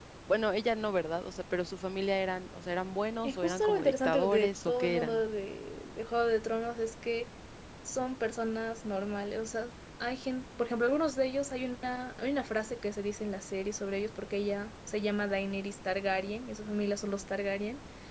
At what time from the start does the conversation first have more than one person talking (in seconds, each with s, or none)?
3.2 s